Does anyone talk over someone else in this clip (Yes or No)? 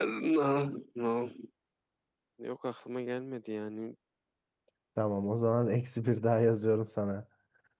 No